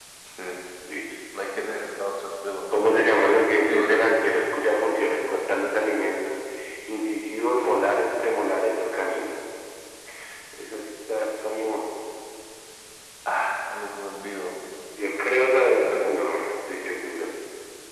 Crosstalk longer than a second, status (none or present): none